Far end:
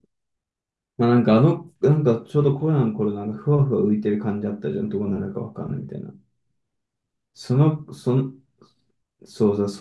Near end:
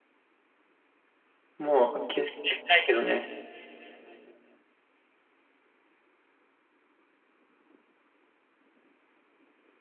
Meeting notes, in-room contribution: present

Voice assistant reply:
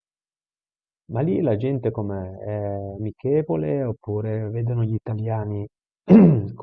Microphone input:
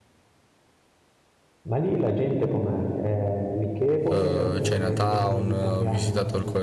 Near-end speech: present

